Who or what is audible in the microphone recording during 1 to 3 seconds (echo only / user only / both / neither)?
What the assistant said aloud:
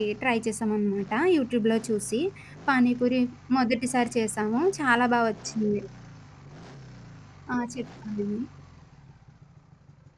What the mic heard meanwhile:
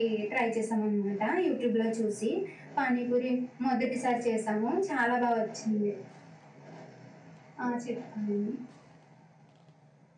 echo only